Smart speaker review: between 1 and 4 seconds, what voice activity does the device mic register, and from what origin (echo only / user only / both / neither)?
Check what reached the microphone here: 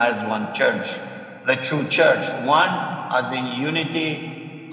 echo only